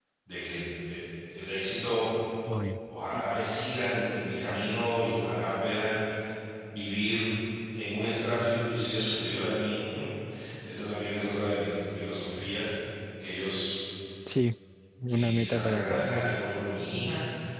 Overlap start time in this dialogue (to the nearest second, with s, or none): 15 s